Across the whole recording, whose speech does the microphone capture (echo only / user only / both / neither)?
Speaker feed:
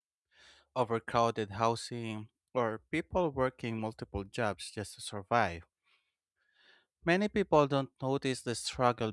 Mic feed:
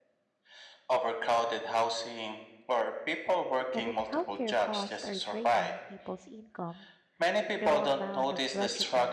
both